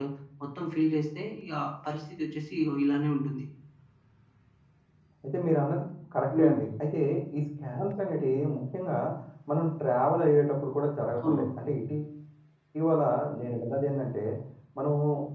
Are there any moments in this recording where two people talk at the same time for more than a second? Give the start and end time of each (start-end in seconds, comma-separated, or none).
none